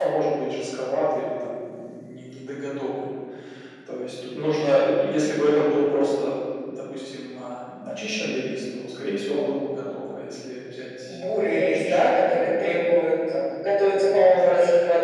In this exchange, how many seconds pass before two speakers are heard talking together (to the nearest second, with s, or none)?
11 s